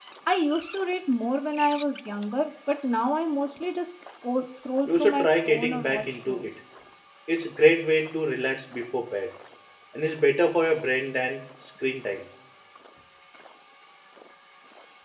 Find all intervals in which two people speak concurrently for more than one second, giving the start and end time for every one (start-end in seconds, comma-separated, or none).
4.8-6.5